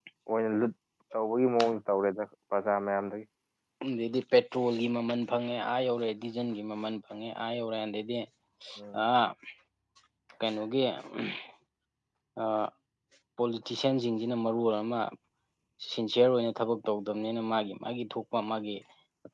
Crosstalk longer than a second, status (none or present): none